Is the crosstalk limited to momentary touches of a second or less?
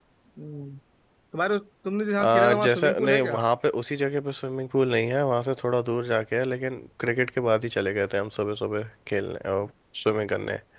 No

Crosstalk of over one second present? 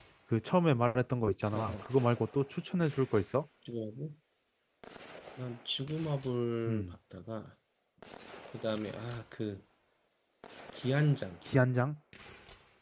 No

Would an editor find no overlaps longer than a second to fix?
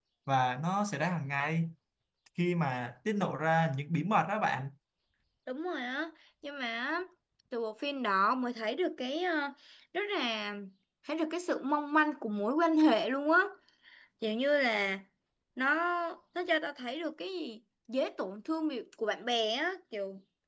Yes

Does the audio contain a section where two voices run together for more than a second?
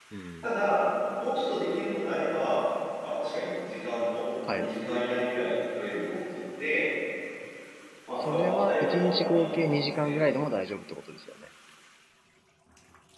Yes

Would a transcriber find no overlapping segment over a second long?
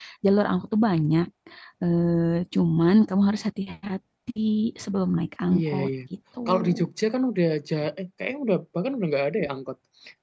Yes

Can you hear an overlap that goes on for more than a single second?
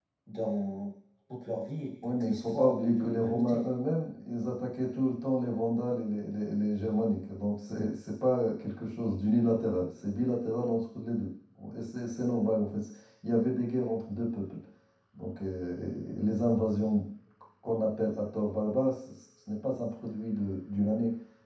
Yes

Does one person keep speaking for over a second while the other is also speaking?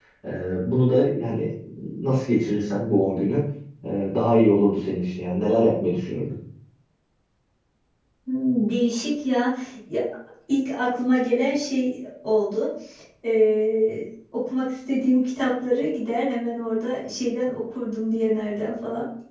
No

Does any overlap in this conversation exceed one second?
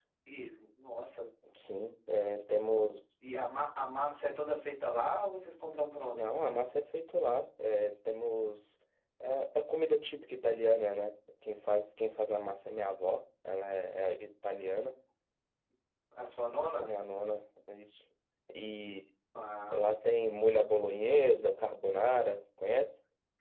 No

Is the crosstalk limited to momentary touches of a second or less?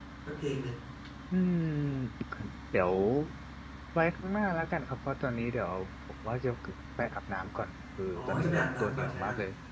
No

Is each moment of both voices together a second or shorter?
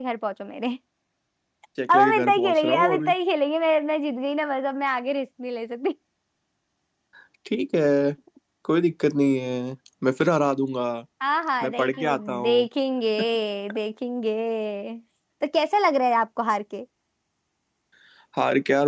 No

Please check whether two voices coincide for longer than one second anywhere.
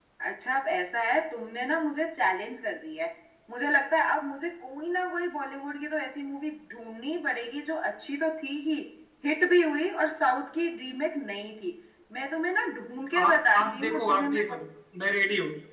Yes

